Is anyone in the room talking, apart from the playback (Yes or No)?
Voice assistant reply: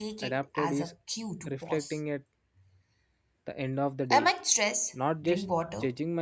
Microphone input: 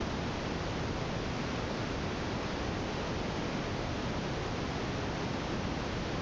No